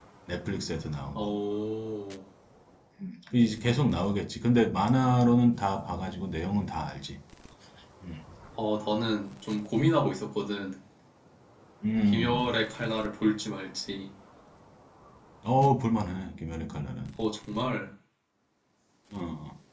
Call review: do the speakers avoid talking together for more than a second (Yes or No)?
Yes